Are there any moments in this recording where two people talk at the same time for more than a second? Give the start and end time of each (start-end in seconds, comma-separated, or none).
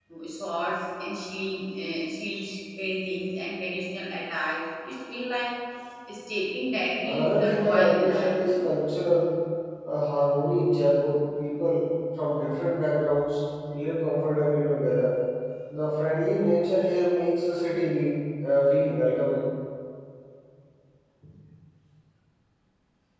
7.0-8.7